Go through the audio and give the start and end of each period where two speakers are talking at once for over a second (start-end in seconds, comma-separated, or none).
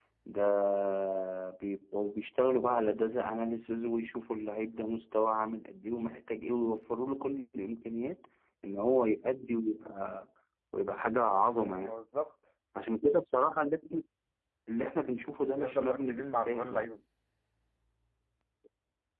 15.6-16.9